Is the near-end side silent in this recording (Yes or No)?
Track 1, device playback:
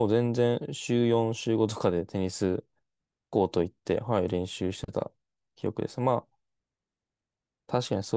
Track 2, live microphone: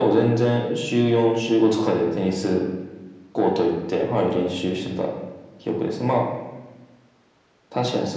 Yes